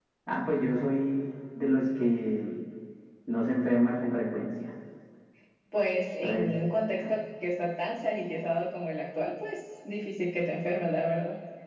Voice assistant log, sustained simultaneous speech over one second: none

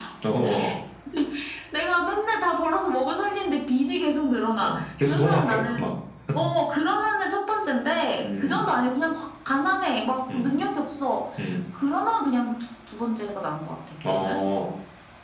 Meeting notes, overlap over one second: present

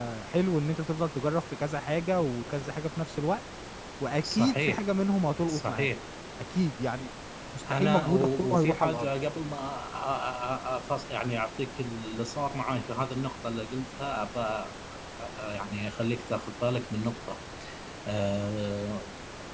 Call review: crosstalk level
present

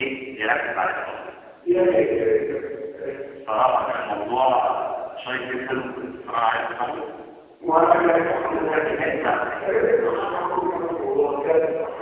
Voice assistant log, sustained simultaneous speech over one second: present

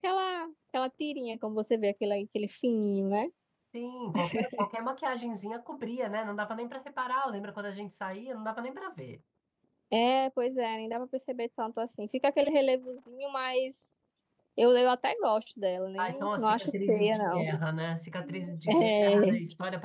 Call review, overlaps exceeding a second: present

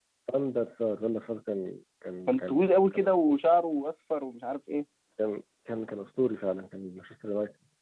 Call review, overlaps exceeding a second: none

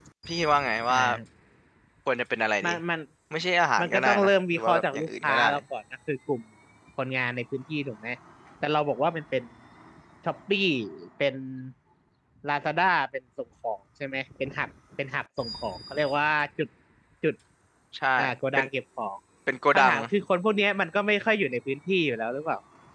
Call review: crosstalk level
present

